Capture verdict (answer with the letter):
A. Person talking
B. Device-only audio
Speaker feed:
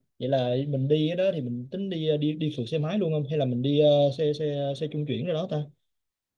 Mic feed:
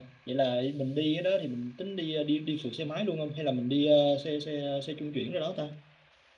B